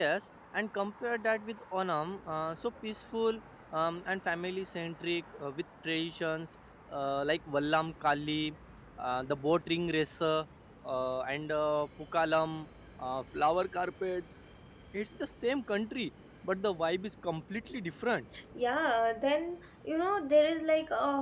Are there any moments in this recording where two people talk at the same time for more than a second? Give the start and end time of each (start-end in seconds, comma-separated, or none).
none